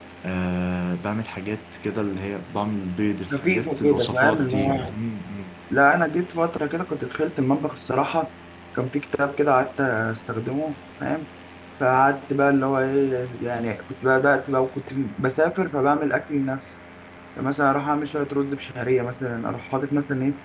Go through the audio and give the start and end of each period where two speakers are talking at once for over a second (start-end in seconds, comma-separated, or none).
3.3-4.9